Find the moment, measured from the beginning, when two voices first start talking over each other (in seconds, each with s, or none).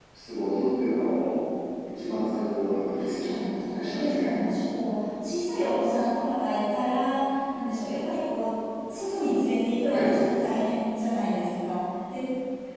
2.9 s